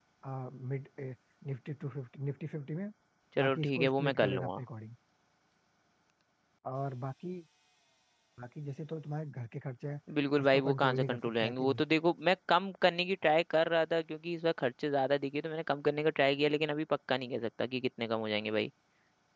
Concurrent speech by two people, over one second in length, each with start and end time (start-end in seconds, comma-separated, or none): 3.4-4.6, 10.4-11.8